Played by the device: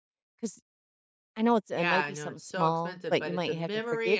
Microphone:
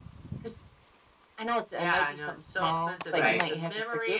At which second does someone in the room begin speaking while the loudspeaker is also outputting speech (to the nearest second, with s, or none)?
3 s